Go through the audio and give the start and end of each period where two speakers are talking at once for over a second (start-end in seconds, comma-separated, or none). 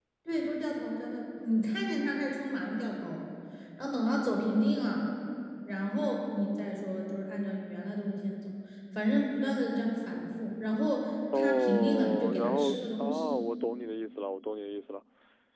11.3-13.2